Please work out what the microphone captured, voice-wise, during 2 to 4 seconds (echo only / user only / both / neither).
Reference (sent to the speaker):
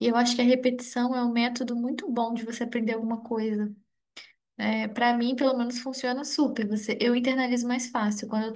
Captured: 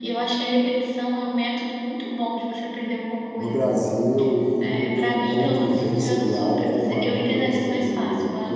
both